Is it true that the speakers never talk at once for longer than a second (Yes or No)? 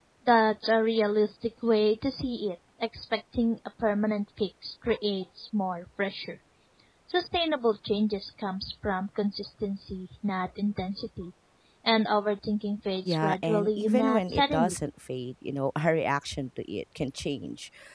No